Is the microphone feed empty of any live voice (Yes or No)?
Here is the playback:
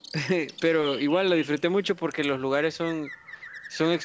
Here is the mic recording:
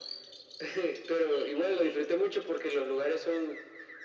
Yes